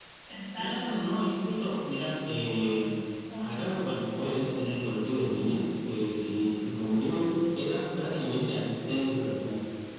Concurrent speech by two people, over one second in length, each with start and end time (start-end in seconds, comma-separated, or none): none